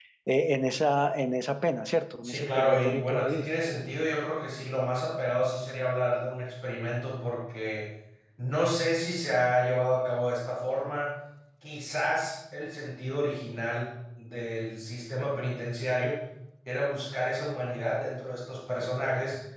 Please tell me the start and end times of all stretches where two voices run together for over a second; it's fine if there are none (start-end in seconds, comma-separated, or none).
2.2-3.5